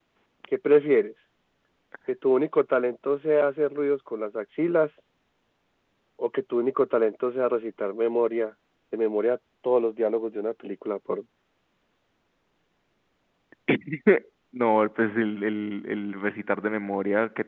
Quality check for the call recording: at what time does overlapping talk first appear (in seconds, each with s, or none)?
none